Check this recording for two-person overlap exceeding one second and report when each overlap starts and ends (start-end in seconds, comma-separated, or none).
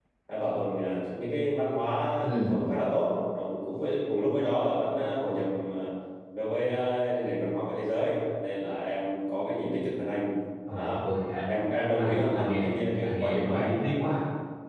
12.0-13.7